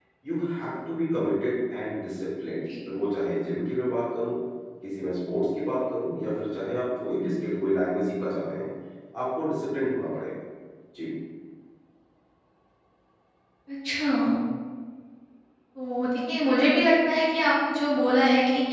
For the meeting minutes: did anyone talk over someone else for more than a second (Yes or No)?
No